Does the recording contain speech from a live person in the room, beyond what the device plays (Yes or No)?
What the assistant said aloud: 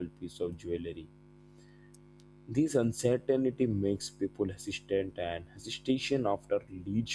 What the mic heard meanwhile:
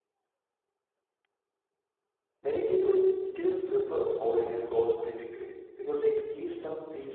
Yes